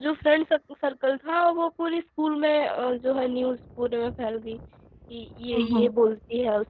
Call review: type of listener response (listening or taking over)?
listening